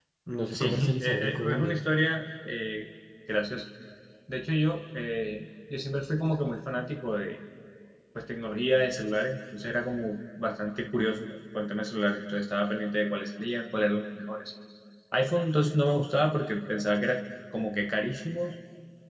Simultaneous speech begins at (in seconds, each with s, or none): 0.5 s